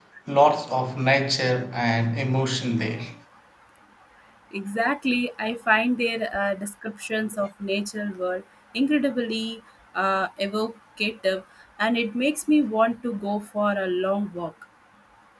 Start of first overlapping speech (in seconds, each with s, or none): none